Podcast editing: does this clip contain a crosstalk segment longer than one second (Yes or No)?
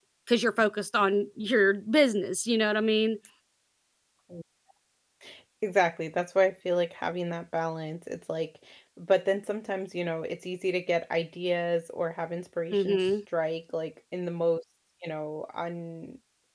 No